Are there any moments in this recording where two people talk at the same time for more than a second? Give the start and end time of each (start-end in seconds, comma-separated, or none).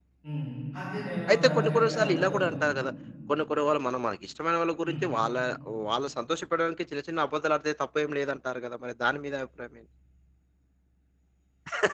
1.3-2.5